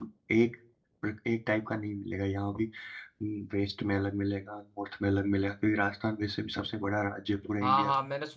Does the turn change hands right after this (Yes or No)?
Yes